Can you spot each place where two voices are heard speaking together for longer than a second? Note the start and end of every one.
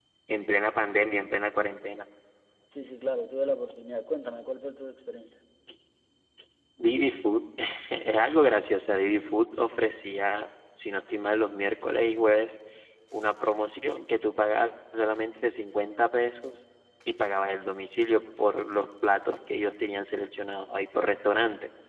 none

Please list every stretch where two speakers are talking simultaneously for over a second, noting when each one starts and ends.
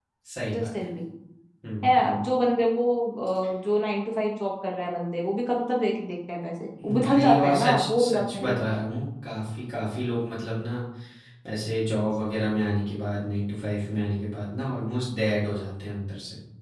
6.8-8.5

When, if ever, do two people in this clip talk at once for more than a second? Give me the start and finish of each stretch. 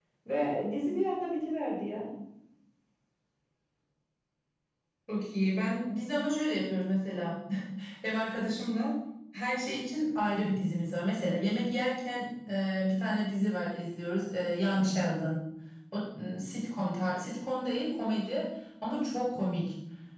none

